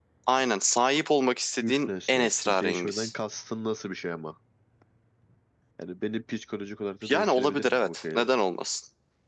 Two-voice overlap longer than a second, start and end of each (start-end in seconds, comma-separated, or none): 1.6-3.1, 7.1-8.3